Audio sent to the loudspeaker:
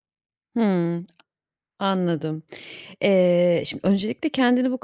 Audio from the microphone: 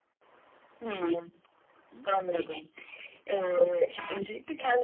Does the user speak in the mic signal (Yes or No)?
No